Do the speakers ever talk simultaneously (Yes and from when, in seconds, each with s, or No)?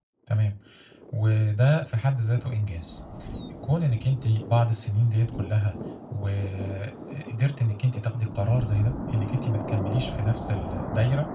No